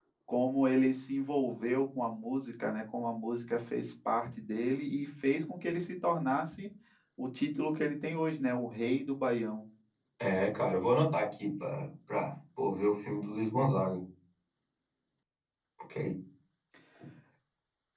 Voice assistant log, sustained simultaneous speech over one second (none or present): none